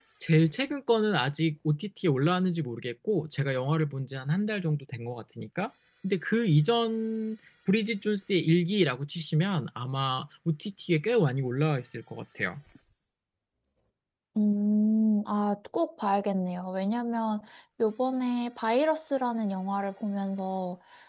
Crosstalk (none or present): none